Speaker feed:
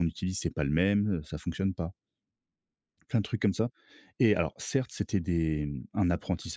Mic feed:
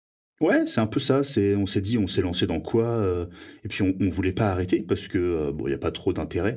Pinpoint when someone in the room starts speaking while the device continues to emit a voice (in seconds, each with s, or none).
0.4 s